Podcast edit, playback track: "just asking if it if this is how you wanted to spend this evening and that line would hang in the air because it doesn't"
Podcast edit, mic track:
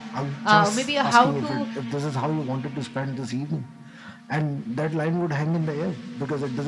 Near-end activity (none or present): present